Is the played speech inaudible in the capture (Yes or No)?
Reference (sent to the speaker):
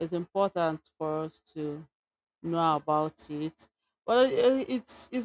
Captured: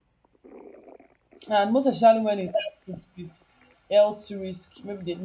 Yes